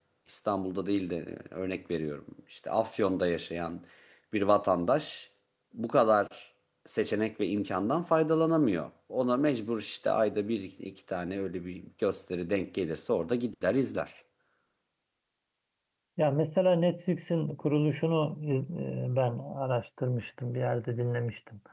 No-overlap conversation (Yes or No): Yes